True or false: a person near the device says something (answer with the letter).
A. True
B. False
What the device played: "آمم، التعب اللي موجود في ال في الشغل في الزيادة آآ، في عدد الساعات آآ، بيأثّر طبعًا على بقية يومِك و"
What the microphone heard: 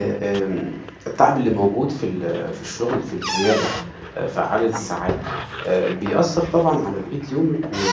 B